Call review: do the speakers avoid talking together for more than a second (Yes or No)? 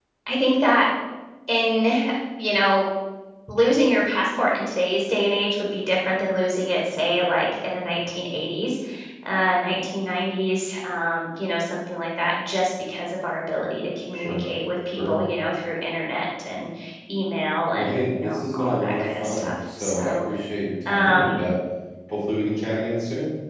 No